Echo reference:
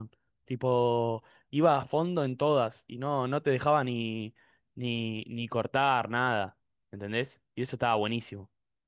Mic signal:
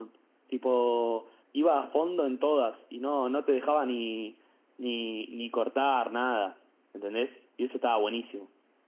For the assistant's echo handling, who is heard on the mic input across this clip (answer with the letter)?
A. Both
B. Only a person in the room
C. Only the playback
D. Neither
C